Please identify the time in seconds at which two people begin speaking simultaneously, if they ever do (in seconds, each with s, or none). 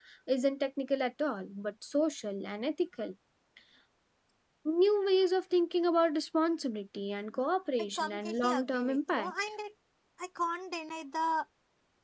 8.0 s